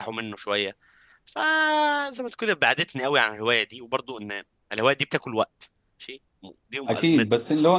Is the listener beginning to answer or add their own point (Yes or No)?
Yes